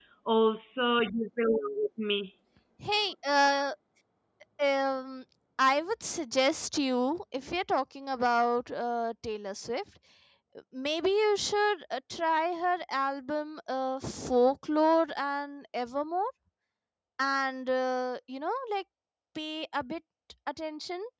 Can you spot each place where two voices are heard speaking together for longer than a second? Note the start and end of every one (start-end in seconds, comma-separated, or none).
none